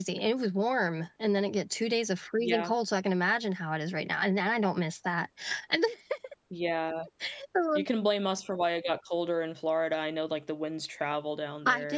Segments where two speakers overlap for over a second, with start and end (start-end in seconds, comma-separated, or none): none